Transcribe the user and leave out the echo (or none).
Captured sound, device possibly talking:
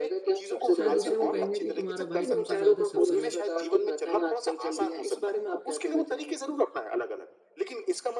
शायद उसे वो कहेंगे कि तुम्हारा भाई तुमसे ज़्यादा सफल है।